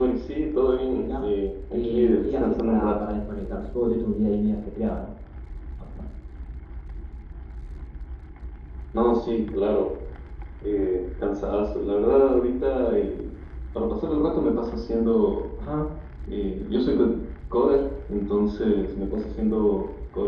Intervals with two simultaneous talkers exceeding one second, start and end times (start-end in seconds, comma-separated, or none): 1.7-3.0